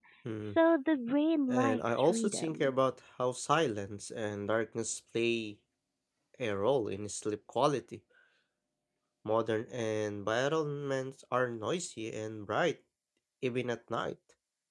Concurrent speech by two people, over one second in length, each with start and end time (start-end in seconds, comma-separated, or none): 1.5-2.7